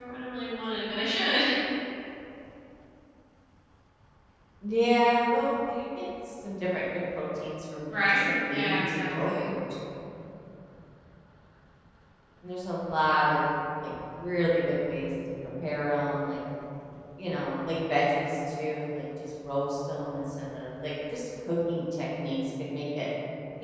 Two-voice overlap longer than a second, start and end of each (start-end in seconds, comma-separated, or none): 7.9-9.5